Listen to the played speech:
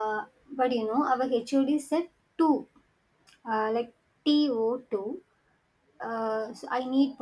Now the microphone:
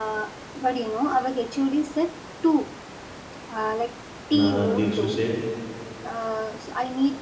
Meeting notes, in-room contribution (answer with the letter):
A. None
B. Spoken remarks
B